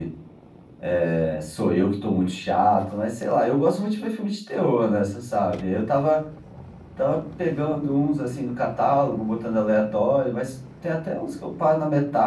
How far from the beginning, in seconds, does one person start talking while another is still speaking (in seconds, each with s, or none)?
none